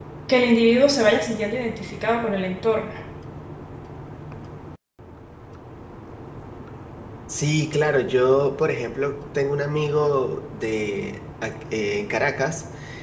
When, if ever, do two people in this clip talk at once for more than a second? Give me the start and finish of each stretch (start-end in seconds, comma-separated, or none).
none